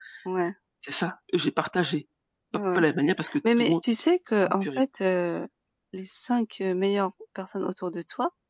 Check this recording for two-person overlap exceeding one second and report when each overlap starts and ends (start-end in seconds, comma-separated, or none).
none